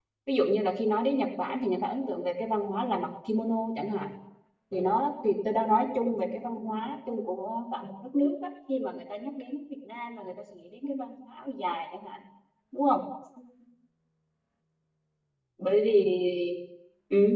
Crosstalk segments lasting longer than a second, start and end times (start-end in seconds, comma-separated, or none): none